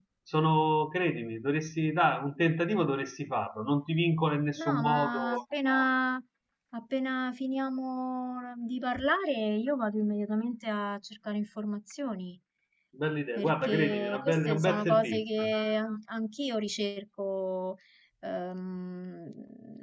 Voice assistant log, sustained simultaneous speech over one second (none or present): present